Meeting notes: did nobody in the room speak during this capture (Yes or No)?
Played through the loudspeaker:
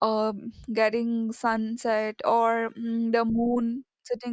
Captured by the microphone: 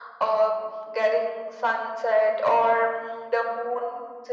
Yes